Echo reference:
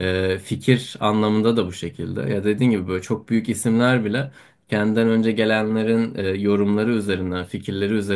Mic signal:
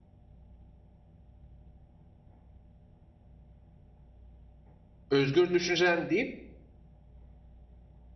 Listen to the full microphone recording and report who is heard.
user only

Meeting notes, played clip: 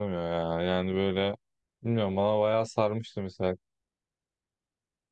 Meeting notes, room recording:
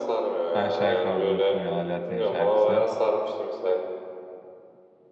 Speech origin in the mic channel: both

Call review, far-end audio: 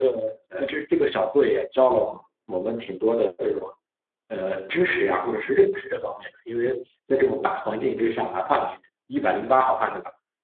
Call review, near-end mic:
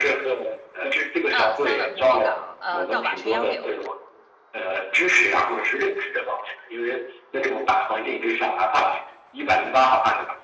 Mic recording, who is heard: both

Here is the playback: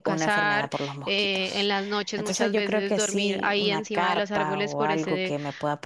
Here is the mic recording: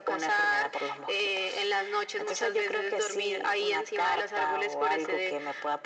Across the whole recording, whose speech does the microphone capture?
echo only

